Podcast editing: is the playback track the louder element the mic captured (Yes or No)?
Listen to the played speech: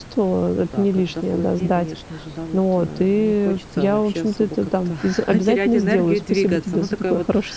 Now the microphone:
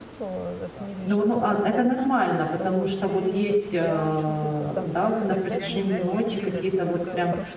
No